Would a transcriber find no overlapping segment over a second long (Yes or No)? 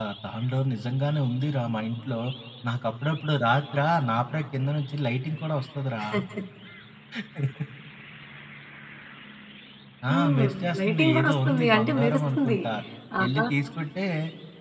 No